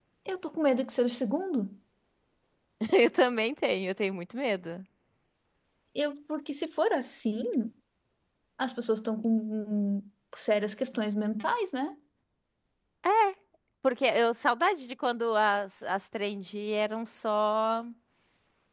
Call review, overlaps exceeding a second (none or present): none